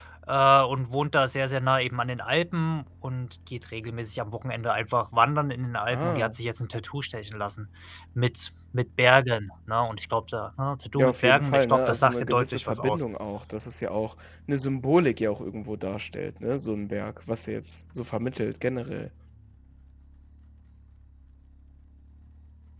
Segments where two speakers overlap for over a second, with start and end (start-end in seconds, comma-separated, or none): 11.0-13.0